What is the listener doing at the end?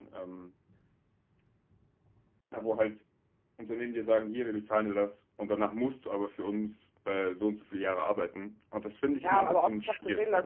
taking over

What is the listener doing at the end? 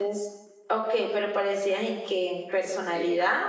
taking over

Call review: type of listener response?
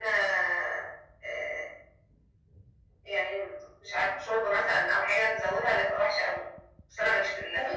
taking over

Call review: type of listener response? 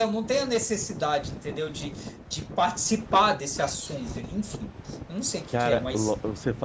taking over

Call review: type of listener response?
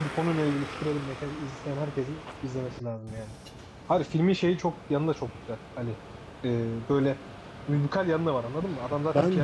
taking over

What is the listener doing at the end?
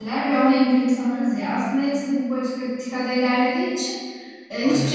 listening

